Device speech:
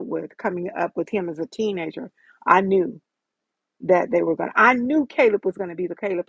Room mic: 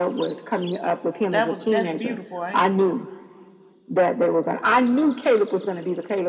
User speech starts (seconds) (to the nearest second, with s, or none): 1 s